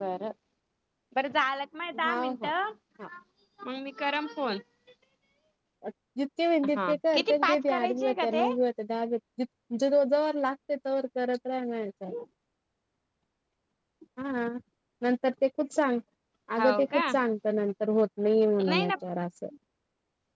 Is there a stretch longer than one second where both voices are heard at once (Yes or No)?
Yes